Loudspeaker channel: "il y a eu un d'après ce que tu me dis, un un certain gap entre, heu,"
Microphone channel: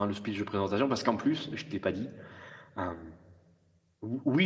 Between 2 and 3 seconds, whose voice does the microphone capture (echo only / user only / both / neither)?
user only